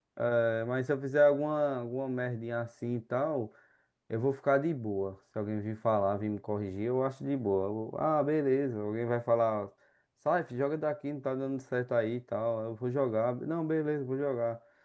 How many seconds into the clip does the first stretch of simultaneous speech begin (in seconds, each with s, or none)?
none